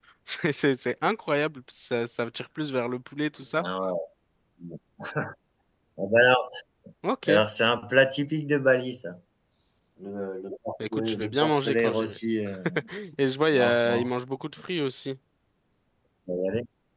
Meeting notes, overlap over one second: present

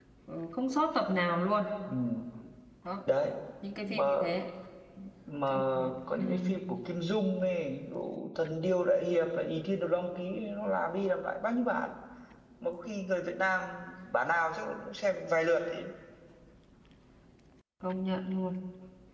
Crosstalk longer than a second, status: none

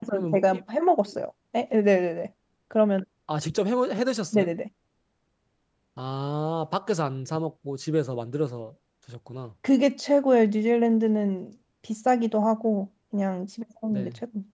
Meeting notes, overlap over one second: none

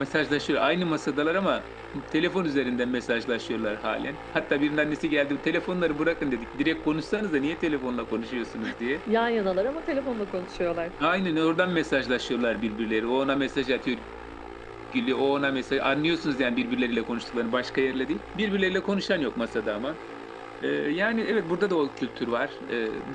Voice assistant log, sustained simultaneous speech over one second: none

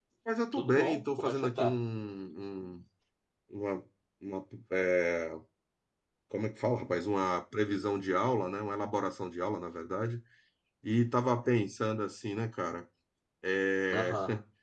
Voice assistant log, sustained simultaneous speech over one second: present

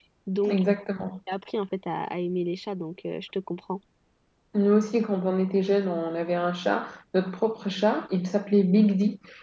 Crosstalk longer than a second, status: none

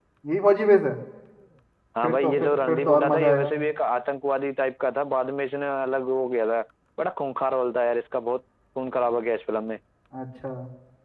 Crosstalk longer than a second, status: present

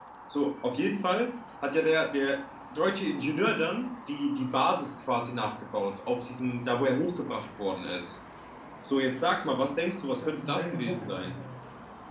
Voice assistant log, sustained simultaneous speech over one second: present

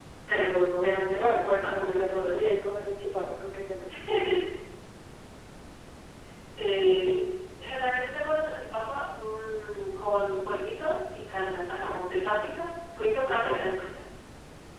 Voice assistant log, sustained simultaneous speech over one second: present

